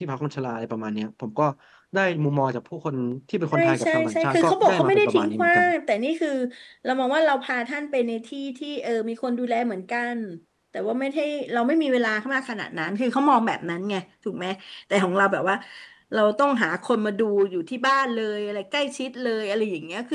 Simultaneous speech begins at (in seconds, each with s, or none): 3.5 s